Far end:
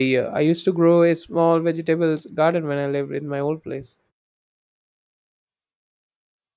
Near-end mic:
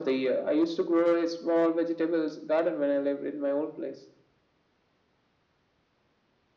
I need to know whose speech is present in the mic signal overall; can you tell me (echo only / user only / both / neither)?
echo only